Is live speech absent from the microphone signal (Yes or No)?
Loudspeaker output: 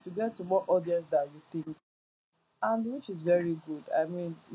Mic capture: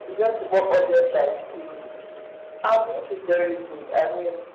Yes